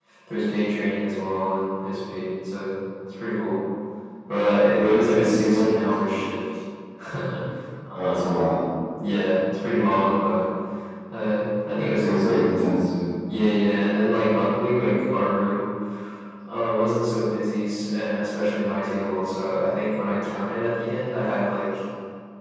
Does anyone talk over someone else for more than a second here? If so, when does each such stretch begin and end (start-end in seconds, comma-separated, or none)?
4.7-6.0